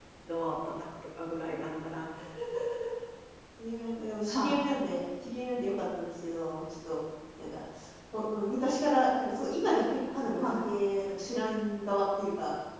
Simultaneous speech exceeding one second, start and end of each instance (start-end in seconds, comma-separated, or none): none